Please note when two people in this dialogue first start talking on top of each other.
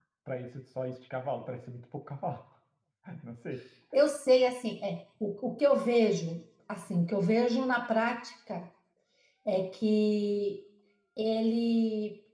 none

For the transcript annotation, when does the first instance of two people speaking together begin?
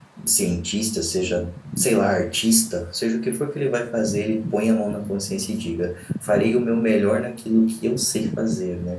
none

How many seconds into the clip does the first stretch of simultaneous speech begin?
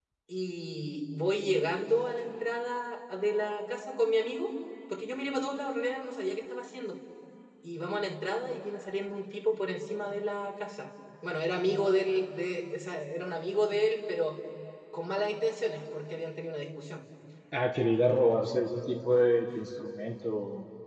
none

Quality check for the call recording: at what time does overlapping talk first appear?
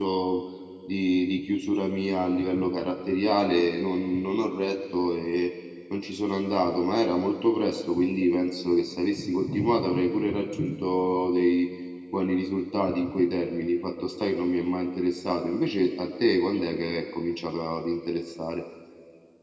none

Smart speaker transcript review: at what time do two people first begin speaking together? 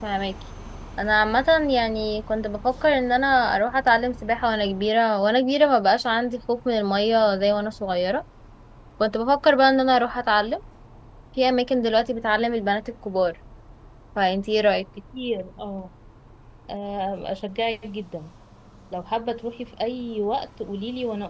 none

